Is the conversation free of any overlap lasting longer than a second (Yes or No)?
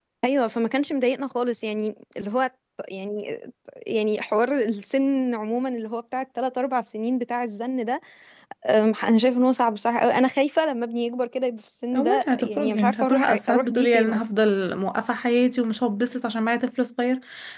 No